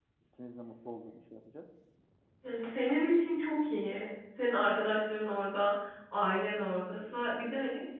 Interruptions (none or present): none